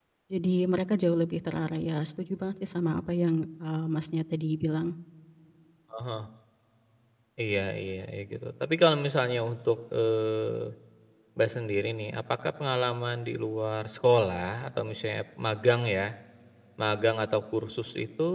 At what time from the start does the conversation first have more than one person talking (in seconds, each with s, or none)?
none